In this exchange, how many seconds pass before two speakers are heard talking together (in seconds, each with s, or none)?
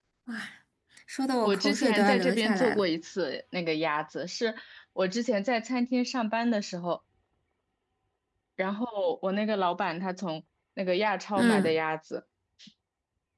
1.4 s